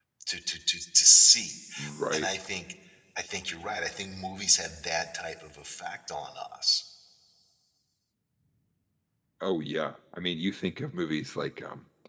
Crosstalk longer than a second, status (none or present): none